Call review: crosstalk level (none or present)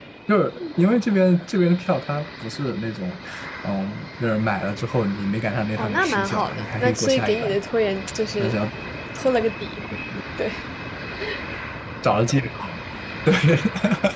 present